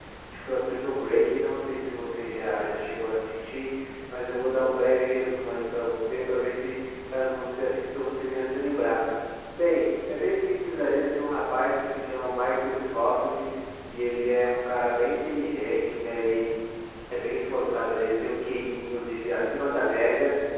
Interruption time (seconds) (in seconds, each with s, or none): none